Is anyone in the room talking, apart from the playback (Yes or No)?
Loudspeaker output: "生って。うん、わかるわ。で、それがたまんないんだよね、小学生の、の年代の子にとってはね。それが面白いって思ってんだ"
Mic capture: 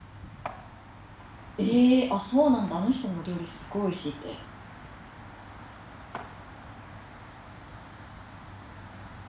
Yes